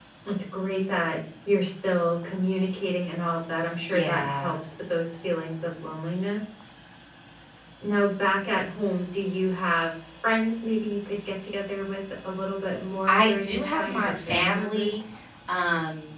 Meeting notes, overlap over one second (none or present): present